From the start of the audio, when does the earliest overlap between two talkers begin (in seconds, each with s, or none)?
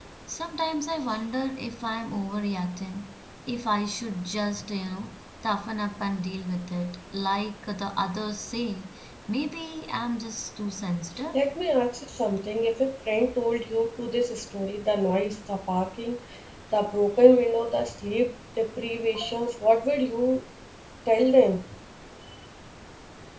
none